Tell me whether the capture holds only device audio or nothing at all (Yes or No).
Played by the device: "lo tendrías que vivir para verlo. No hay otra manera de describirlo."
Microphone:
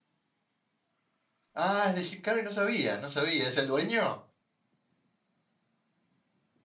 No